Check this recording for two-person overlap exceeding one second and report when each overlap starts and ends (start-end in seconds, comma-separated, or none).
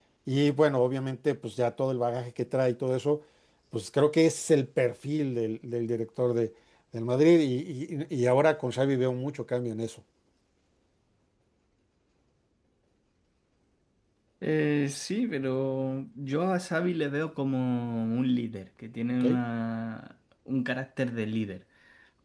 none